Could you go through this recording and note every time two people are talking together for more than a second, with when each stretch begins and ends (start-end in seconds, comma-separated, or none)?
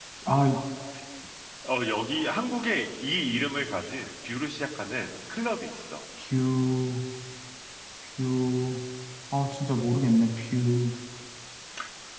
none